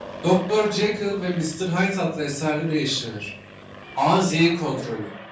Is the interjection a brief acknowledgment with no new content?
Yes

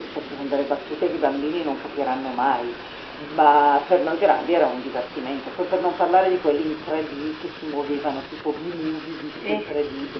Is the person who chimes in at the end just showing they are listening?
Yes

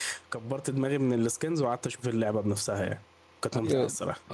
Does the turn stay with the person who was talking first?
No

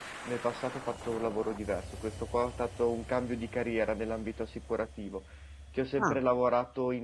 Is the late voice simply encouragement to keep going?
Yes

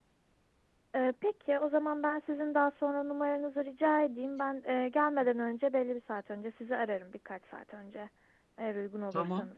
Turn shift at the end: Yes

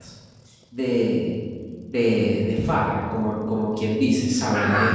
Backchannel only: Yes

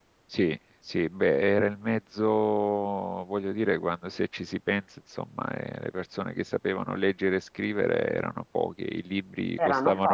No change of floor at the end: Yes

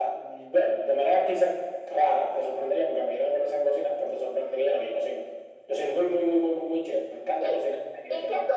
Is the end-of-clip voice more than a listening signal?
Yes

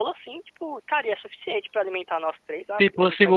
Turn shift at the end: Yes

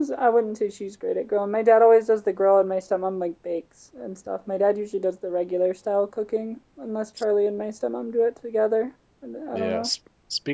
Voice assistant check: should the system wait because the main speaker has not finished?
No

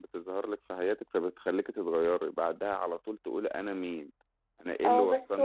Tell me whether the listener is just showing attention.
No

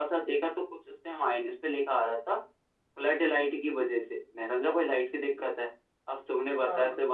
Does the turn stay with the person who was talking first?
Yes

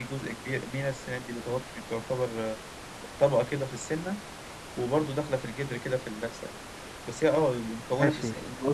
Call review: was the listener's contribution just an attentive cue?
No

